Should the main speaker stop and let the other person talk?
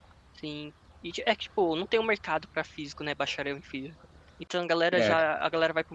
No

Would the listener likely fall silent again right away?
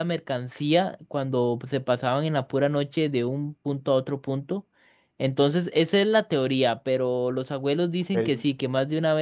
Yes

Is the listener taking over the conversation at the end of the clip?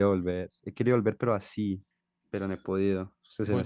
Yes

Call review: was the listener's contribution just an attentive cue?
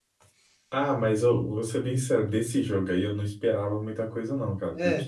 Yes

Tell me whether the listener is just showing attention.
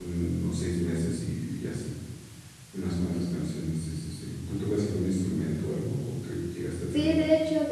No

